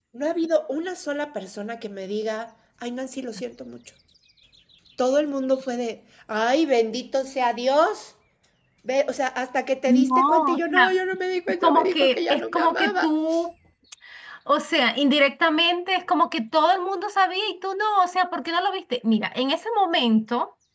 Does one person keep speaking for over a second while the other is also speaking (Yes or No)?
Yes